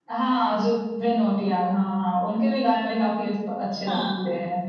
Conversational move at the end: taking over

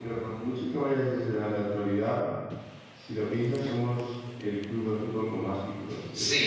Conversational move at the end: taking over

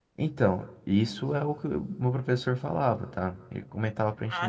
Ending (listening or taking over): taking over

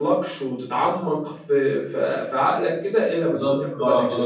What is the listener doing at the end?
taking over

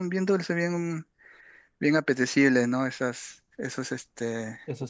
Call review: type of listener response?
taking over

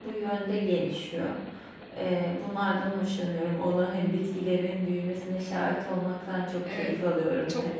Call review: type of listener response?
taking over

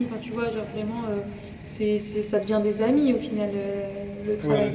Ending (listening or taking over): taking over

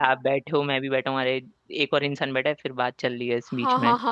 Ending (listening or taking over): taking over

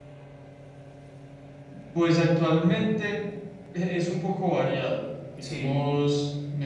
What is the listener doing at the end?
listening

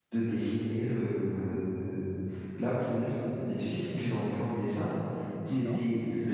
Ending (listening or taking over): listening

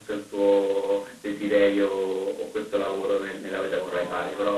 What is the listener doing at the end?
listening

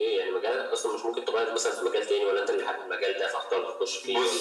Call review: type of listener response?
taking over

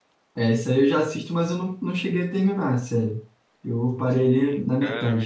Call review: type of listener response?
taking over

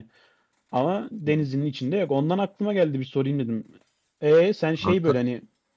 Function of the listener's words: listening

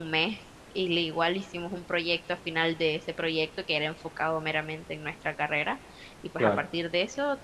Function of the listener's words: listening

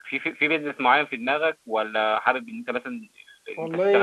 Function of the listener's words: taking over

